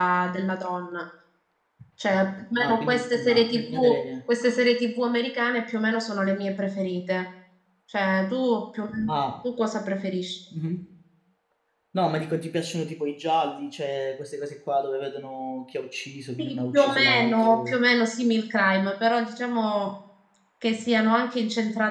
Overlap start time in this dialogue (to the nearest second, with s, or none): 3 s